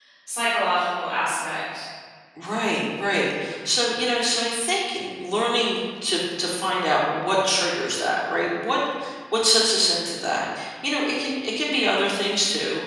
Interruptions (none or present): none